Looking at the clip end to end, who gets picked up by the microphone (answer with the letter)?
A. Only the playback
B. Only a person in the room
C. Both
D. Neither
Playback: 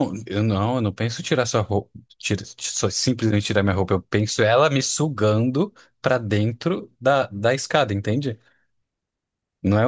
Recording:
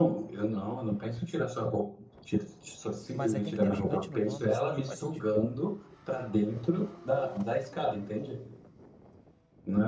C